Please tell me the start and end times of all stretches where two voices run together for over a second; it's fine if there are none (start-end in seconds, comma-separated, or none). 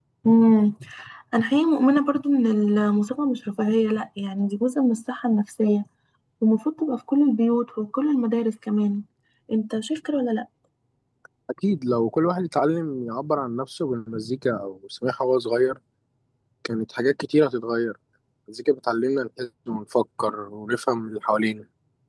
none